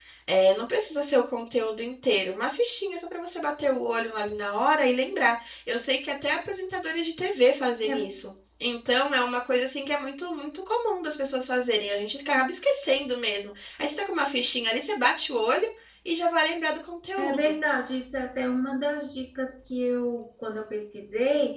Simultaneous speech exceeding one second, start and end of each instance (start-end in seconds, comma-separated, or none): none